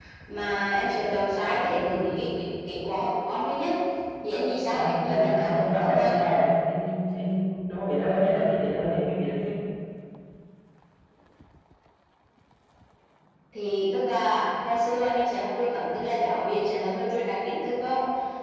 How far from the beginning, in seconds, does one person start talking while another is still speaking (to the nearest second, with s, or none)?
5 s